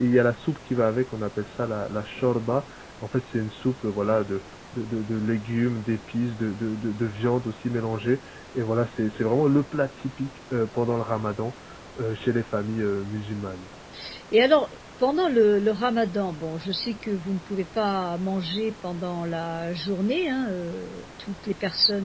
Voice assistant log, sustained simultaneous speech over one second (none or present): none